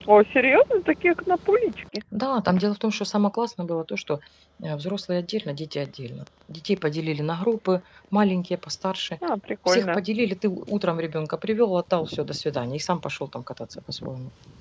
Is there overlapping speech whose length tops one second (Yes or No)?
No